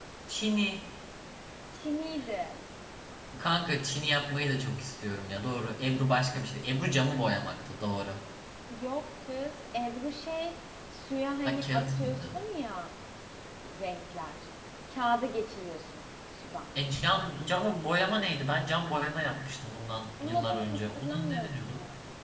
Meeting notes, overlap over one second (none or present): present